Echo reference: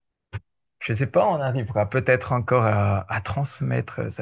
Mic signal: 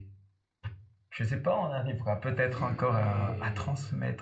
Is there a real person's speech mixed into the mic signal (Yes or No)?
Yes